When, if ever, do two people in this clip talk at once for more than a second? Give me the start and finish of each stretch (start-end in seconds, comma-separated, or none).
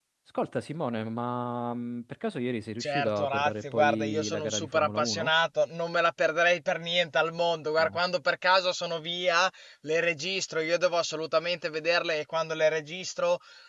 2.8-5.3